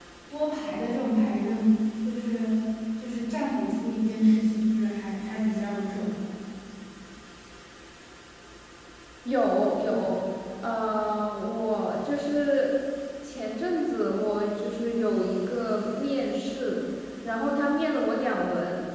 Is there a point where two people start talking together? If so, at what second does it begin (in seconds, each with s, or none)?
none